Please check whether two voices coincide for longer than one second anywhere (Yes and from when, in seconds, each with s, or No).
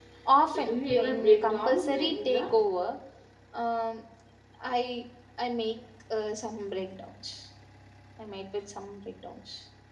Yes, from 0.5 s